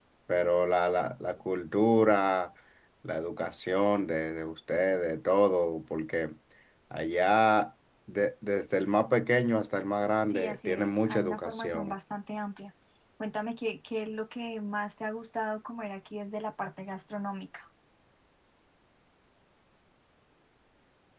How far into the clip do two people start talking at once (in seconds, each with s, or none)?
10.3 s